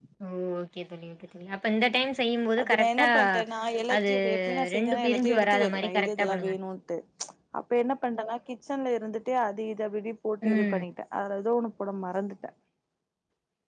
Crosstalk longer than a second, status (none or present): present